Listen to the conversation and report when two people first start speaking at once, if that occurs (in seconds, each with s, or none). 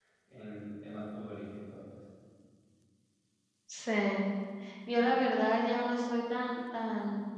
none